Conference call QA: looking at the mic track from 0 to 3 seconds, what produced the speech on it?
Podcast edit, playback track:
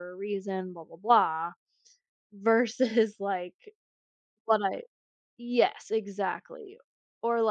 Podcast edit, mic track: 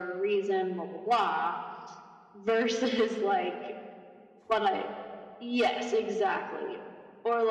echo only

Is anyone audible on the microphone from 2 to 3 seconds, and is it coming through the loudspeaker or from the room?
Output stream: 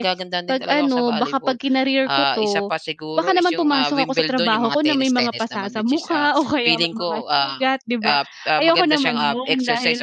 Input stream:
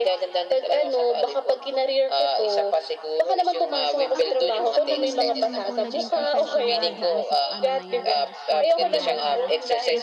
echo only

